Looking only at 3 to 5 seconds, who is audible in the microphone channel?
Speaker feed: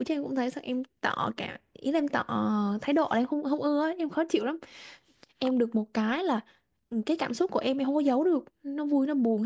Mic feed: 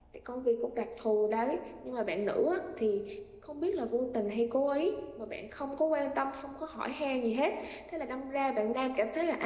user only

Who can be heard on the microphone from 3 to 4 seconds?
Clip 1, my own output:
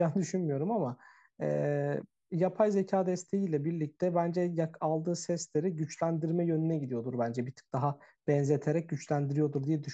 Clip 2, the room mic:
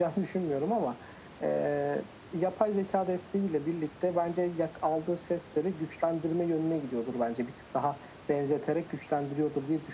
echo only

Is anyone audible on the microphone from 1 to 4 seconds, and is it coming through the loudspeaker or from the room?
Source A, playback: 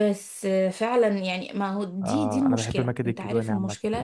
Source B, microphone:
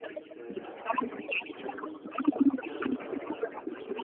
both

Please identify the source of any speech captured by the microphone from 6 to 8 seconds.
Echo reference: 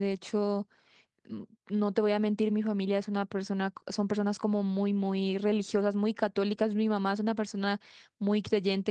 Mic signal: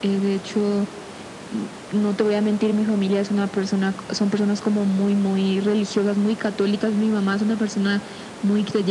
echo only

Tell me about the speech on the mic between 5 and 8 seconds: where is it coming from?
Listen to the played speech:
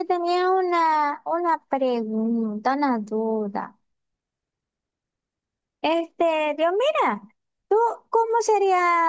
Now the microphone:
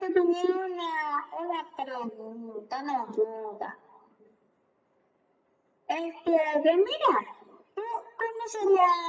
echo only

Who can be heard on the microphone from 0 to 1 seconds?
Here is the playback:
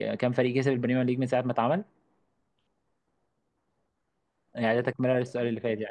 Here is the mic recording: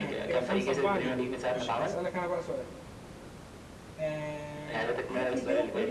both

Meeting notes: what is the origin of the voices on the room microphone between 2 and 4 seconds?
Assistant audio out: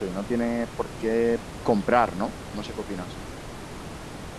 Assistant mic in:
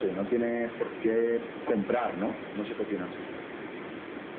echo only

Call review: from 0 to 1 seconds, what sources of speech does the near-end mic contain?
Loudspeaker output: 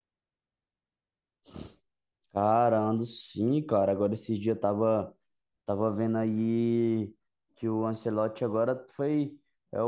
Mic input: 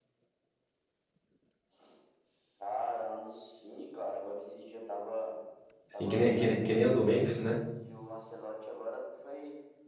neither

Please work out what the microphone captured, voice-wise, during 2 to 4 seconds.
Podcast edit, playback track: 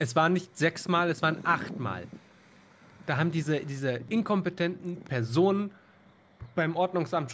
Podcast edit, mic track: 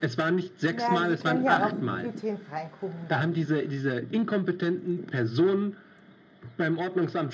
both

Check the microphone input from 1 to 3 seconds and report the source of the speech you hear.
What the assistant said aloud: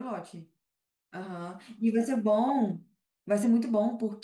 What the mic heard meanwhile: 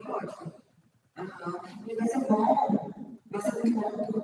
echo only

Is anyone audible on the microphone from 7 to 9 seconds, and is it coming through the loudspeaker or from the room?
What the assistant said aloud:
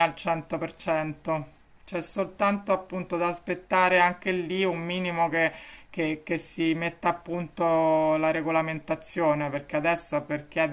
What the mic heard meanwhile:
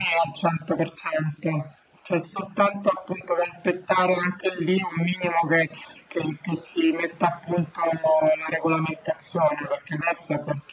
echo only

